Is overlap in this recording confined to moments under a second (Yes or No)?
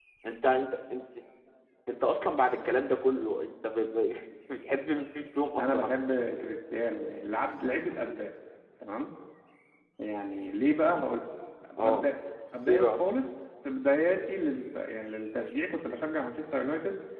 Yes